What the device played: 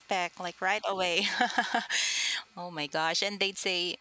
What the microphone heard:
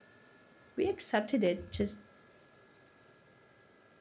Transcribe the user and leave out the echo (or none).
we accepted it just